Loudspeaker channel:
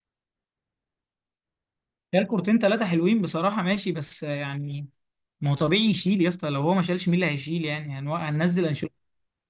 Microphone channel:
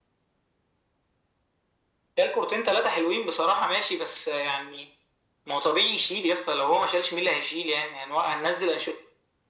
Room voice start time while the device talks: none

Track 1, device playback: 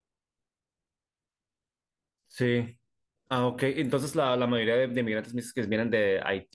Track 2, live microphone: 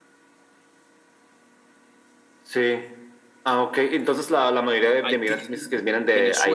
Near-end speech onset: 5.0 s

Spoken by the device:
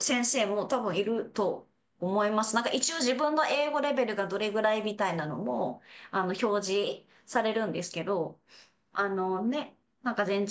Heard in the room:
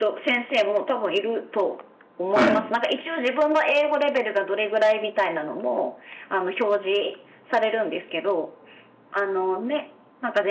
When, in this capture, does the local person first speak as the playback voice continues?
2.3 s

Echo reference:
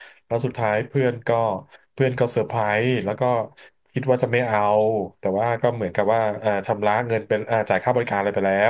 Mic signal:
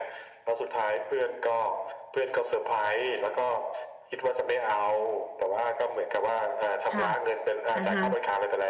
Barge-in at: 6.9 s

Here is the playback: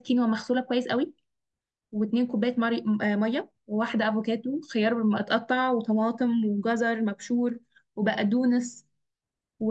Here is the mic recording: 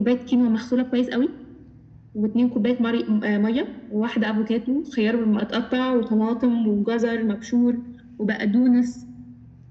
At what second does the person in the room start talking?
none

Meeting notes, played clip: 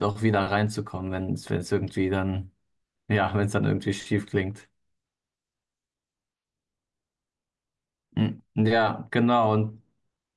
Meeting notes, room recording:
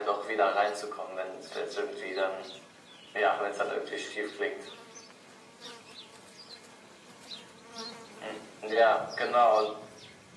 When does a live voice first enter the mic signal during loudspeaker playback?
none

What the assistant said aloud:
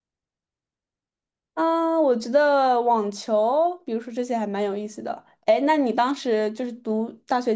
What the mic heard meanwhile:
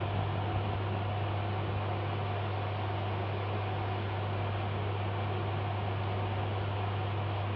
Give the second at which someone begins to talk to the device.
none

